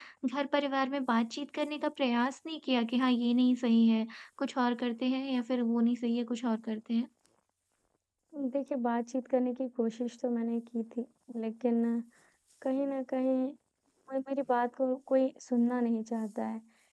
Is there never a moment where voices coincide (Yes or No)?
Yes